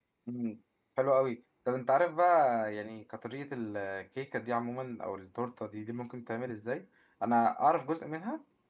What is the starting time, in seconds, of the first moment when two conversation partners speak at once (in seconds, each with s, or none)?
none